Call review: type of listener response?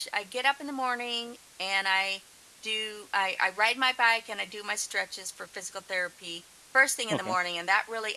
listening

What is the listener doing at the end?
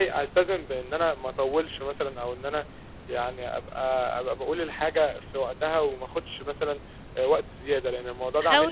taking over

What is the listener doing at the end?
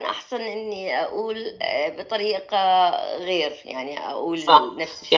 taking over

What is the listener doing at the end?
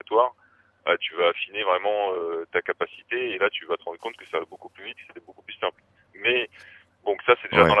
taking over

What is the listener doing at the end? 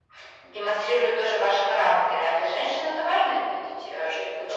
taking over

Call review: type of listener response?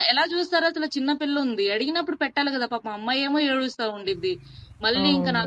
listening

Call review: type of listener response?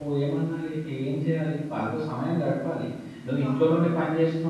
listening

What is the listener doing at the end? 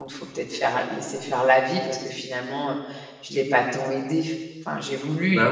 listening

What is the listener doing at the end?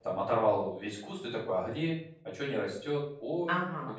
taking over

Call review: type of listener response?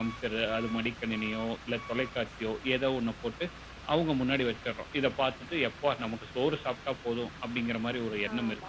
taking over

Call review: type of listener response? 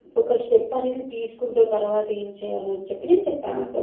taking over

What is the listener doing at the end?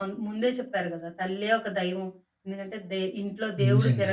listening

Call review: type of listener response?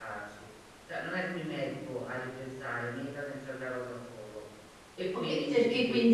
taking over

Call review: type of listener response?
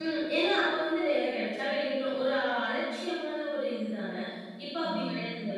listening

